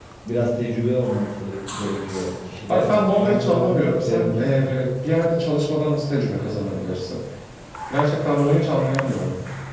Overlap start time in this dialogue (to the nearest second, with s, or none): 3 s